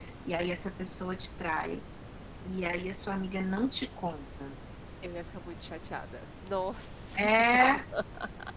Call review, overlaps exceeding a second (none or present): none